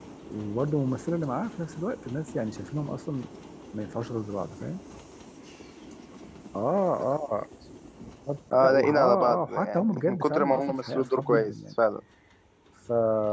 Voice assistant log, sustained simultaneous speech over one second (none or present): present